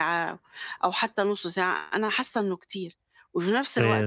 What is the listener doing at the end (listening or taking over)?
listening